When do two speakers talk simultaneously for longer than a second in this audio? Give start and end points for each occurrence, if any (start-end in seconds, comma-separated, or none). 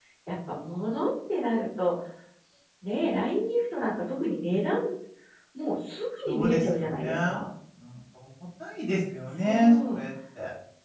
6.3-7.5